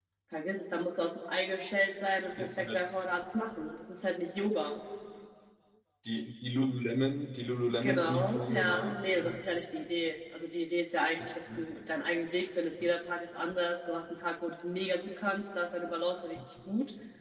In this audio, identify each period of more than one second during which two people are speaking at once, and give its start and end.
7.8-9.4

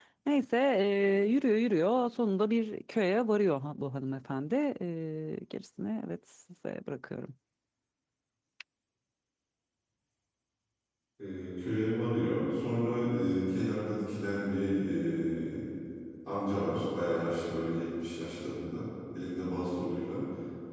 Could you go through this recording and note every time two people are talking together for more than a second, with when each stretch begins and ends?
none

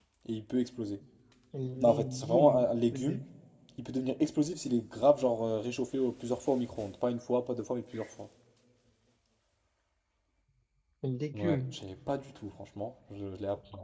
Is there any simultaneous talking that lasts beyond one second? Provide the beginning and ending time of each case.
1.8-3.2

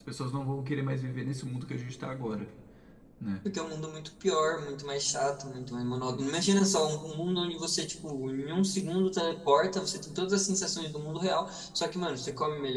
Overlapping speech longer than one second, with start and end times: none

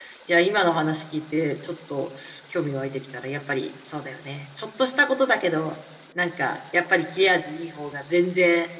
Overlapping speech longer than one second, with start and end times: none

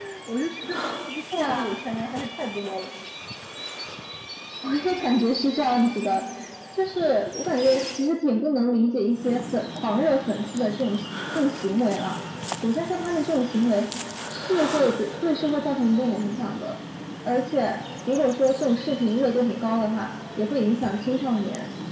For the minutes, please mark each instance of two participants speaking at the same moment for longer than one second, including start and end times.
none

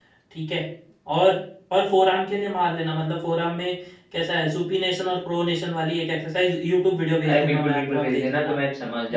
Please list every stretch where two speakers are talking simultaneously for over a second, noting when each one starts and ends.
7.3-8.6

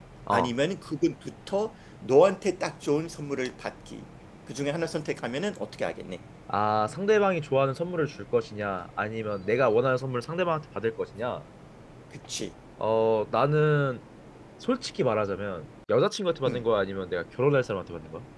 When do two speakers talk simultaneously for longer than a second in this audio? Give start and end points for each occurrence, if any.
none

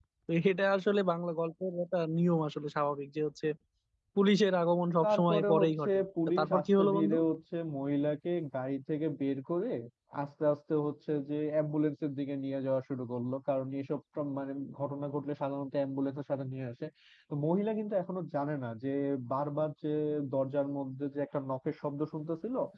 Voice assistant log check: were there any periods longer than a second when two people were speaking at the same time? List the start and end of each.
5.0-7.2

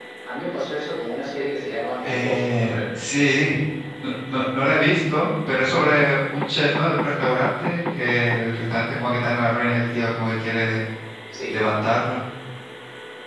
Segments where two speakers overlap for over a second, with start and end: 2.0-3.6

